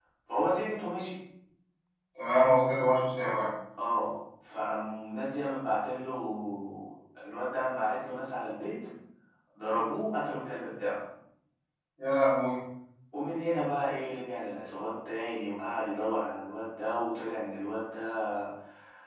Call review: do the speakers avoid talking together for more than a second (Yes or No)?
Yes